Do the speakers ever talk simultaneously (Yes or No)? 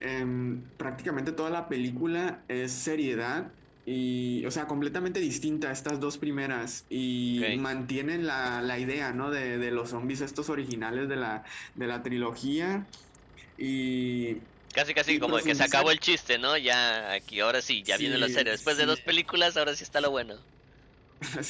Yes